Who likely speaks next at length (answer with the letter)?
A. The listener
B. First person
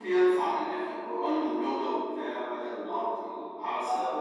A